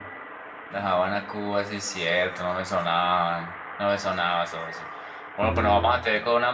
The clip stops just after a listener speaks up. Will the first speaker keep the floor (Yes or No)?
Yes